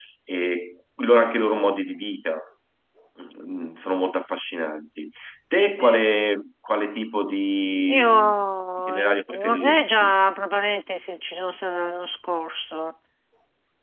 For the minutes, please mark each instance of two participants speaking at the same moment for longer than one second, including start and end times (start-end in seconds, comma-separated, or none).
8.9-10.1